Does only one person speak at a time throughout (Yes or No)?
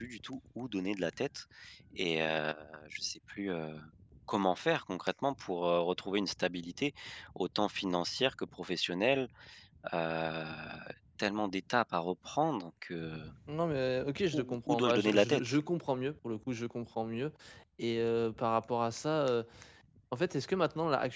No